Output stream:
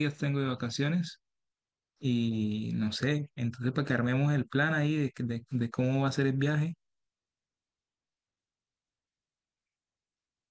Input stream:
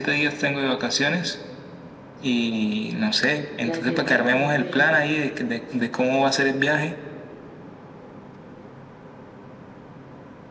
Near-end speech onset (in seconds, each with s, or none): 3.6 s